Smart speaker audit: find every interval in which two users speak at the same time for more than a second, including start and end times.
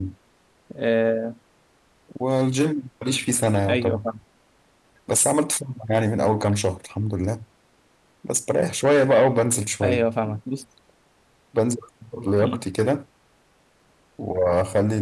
none

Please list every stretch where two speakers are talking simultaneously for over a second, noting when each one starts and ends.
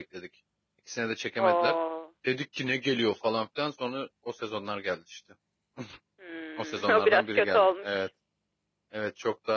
6.6-8.1

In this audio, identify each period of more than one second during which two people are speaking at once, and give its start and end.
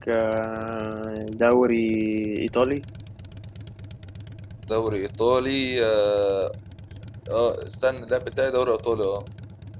none

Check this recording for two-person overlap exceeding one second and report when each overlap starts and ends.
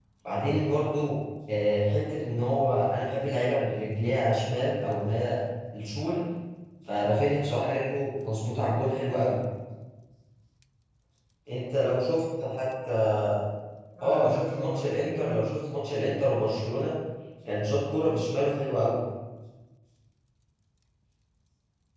14.0-15.6

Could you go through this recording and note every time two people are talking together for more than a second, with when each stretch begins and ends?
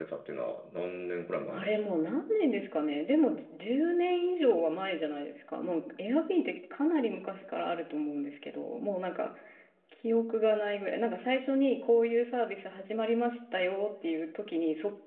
none

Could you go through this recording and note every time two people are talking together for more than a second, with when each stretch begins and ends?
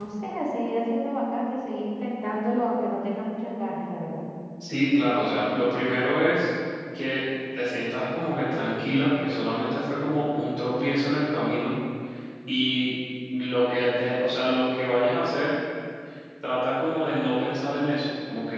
none

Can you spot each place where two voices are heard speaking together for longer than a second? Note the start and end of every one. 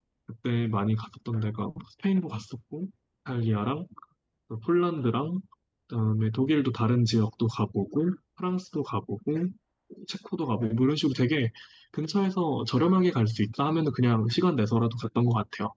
none

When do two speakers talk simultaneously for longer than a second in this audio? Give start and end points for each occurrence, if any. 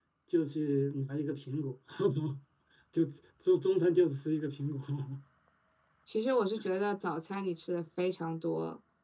none

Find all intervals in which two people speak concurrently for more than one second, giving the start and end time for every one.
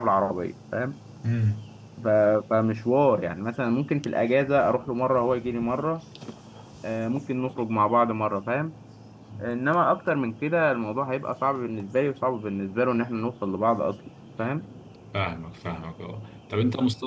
none

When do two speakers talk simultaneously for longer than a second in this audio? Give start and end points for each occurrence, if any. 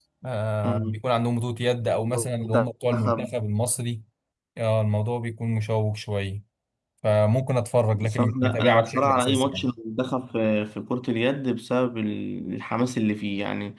2.1-3.3, 8.0-9.7

